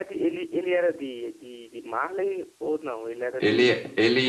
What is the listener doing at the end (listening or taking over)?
taking over